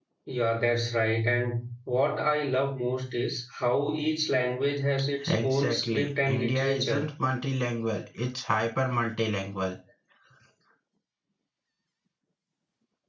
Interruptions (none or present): present